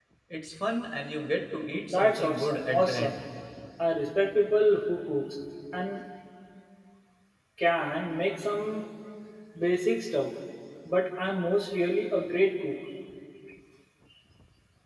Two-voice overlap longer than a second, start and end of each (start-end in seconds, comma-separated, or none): 1.9-3.2